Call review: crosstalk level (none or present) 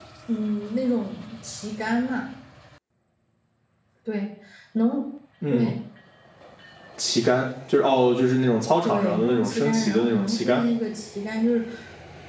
present